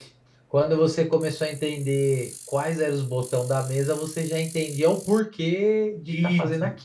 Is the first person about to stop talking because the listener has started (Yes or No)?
Yes